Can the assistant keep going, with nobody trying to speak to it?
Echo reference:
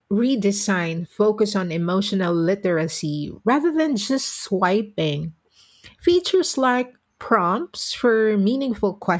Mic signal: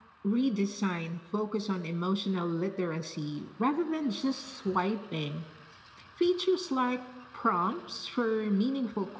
Yes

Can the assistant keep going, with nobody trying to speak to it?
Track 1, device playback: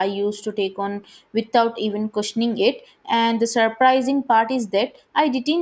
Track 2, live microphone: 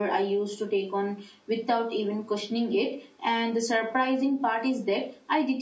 Yes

